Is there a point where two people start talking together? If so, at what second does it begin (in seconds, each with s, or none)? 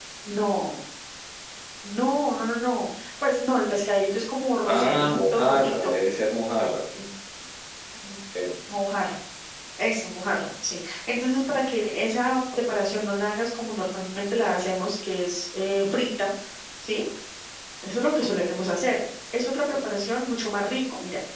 4.7 s